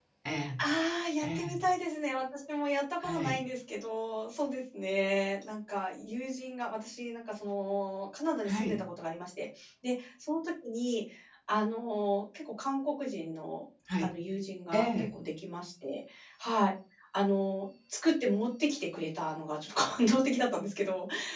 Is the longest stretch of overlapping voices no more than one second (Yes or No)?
Yes